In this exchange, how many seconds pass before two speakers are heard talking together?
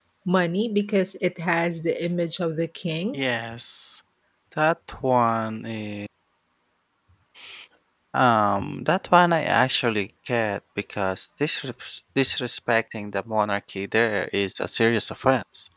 none

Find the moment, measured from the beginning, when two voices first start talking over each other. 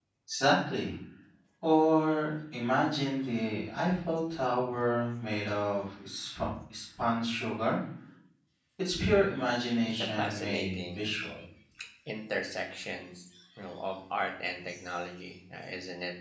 9.4 s

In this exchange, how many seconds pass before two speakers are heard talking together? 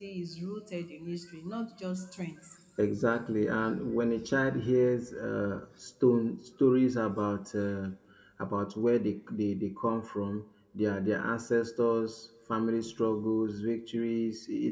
none

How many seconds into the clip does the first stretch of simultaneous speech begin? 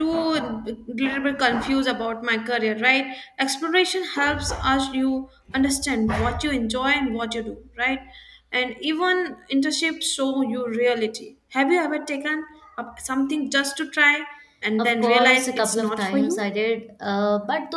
14.8 s

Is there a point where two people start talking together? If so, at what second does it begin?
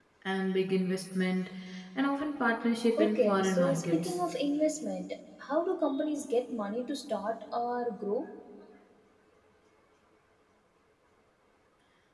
3.0 s

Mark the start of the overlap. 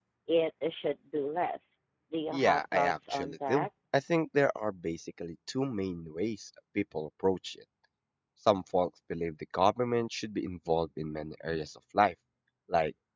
2.3 s

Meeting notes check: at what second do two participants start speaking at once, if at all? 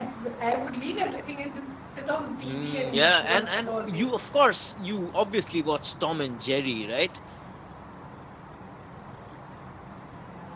2.4 s

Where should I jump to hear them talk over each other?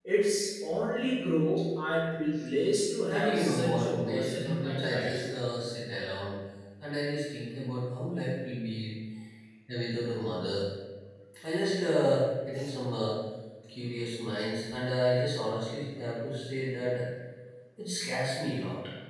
3.1 s

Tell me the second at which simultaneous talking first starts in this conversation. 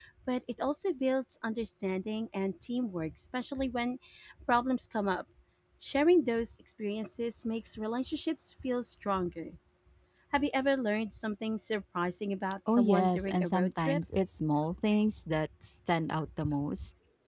12.7 s

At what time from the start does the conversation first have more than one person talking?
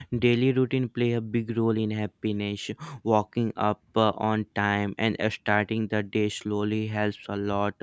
none

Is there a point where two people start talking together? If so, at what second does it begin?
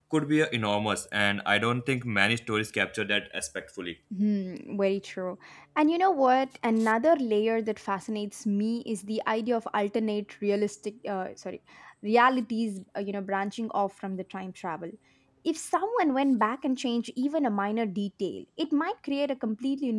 none

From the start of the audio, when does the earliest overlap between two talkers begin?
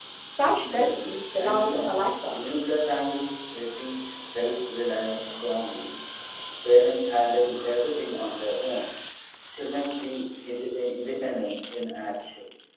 0.7 s

